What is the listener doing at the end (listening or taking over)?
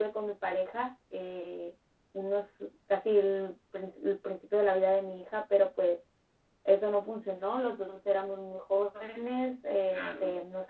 listening